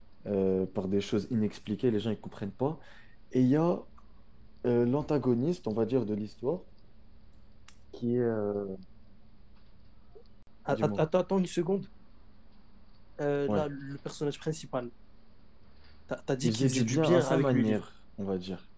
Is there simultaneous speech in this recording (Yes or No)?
Yes